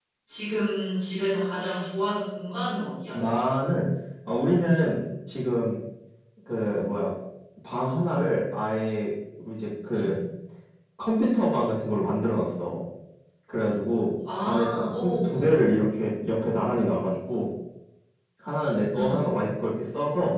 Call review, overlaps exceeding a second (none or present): present